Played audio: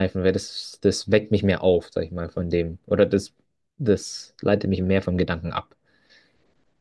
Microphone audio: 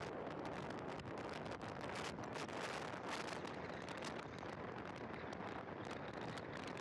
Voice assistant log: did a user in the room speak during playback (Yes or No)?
No